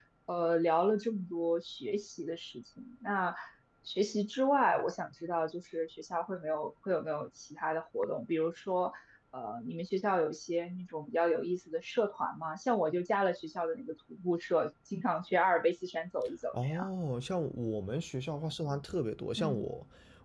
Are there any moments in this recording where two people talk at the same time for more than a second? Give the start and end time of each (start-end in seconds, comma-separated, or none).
none